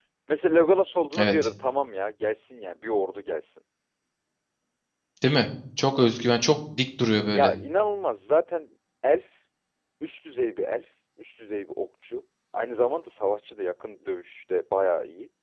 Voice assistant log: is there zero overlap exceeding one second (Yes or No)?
Yes